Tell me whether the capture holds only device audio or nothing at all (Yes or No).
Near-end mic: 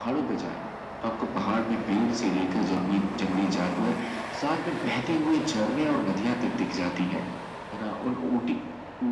Yes